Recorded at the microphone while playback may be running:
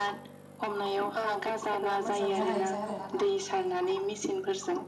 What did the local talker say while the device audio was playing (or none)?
मोननो हायो आरो